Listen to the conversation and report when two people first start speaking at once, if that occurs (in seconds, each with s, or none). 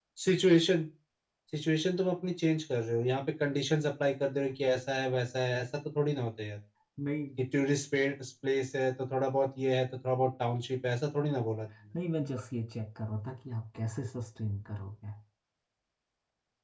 none